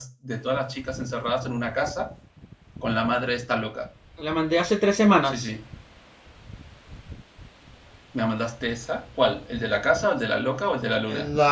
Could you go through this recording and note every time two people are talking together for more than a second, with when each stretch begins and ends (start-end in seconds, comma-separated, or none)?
none